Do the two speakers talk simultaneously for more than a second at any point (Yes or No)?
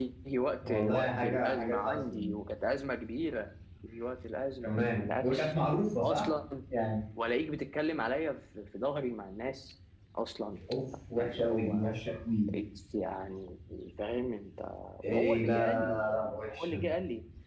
Yes